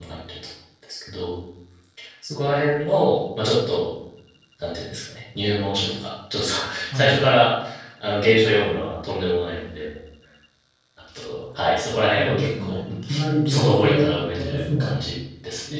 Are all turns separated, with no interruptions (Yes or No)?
No